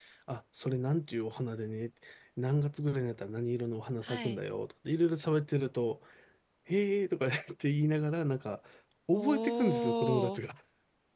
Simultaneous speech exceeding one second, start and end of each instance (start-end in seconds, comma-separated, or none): 9.1-10.4